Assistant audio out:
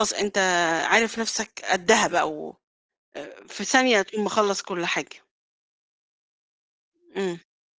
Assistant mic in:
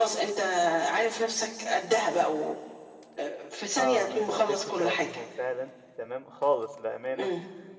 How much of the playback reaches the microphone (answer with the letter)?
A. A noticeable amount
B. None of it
A